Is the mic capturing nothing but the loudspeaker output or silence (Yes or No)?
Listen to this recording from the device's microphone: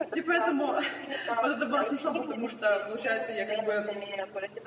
No